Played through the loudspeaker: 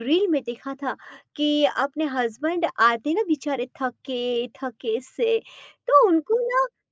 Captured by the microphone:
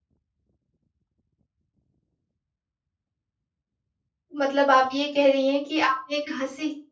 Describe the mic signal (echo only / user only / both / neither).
user only